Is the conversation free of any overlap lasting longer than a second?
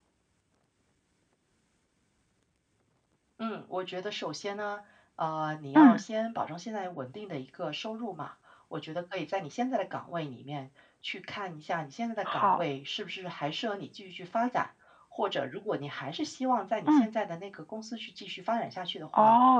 Yes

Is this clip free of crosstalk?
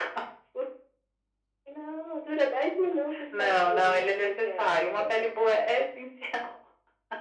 No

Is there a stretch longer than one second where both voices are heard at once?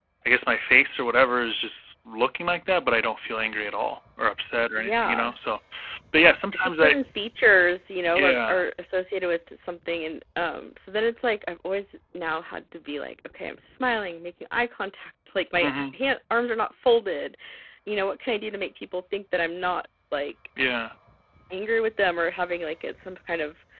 No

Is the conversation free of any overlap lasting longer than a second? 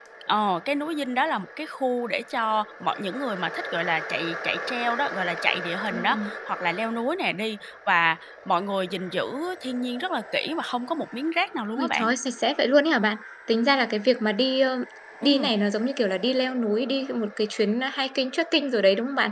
Yes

